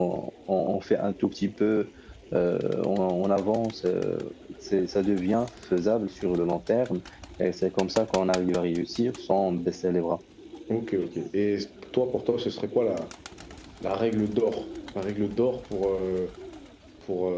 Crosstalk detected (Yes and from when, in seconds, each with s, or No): No